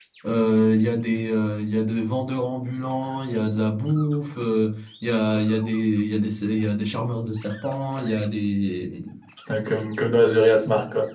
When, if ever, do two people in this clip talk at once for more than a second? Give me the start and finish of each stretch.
none

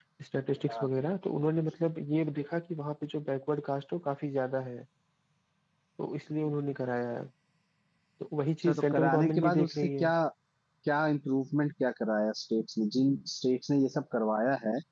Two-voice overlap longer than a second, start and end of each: 8.6-10.1

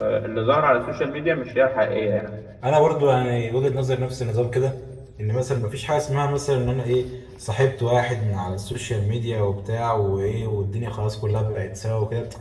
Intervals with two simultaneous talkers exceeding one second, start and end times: none

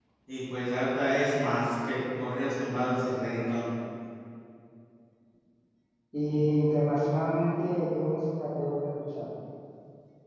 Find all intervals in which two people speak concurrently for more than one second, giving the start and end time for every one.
none

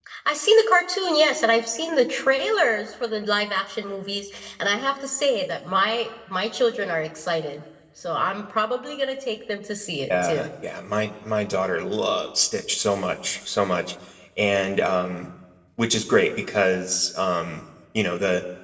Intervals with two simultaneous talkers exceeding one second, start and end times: none

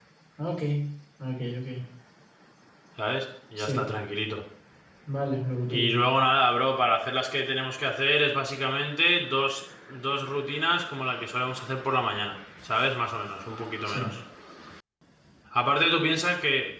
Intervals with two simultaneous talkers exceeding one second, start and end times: none

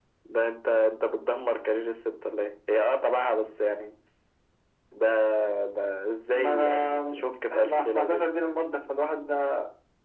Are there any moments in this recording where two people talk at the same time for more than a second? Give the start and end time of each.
6.3-8.3

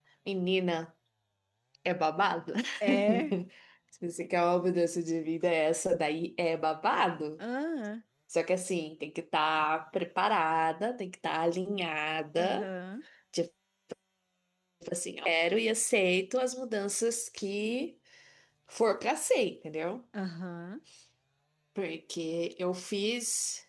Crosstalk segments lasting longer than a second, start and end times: none

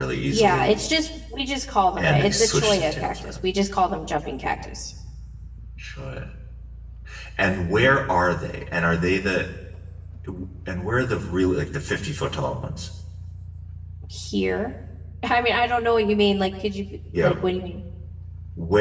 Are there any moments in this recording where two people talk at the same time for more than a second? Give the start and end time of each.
2.0-3.4

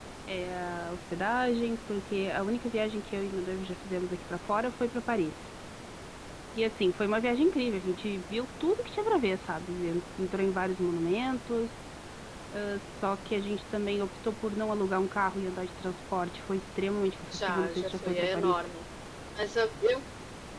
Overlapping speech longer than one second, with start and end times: 17.3-18.7

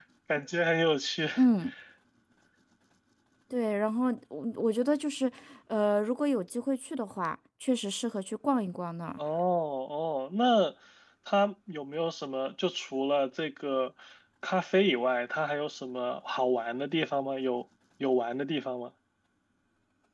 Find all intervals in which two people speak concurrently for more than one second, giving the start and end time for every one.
none

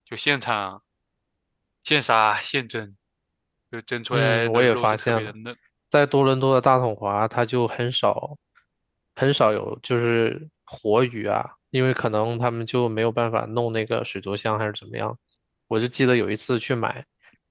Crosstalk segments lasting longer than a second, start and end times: 4.1-5.3

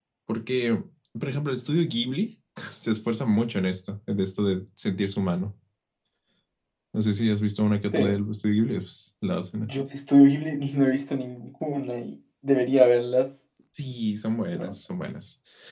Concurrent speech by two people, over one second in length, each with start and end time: none

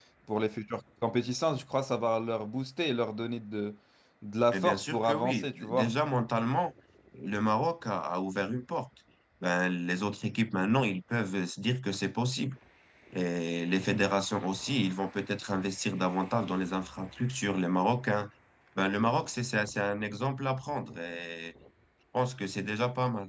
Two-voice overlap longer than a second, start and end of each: 4.5-5.9

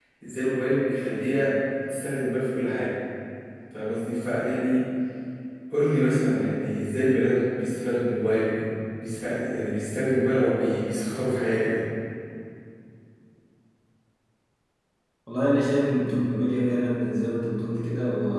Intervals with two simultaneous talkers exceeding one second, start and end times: none

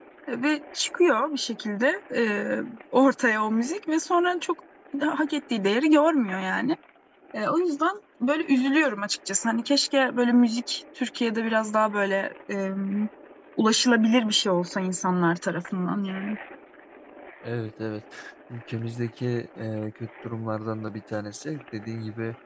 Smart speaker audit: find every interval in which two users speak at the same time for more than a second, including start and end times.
none

